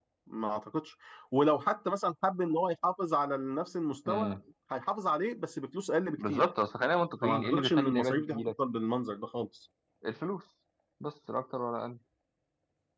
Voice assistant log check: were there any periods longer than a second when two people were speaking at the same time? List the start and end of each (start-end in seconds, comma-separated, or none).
7.2-8.5